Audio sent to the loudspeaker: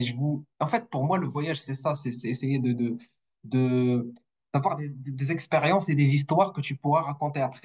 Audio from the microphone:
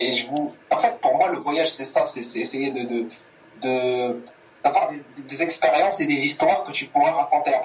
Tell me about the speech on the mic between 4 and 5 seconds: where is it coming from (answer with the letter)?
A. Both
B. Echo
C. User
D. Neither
B